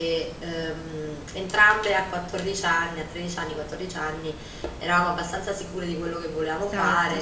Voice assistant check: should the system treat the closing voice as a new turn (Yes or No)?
No